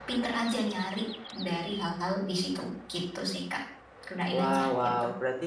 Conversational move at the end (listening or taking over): taking over